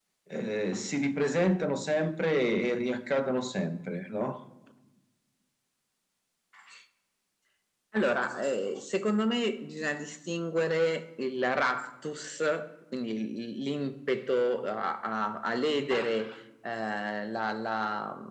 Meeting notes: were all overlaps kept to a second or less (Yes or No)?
Yes